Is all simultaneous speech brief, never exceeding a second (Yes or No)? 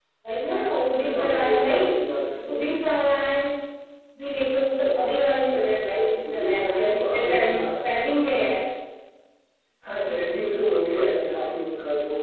No